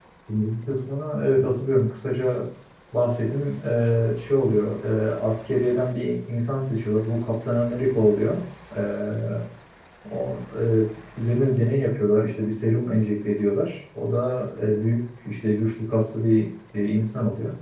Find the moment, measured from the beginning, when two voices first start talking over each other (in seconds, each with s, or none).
none